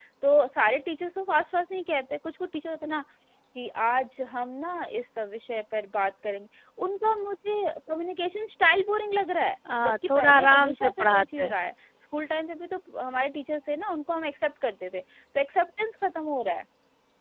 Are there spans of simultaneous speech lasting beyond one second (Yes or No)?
Yes